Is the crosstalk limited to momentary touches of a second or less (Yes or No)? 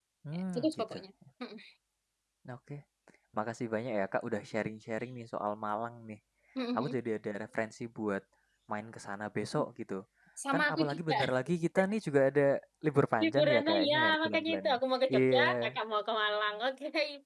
No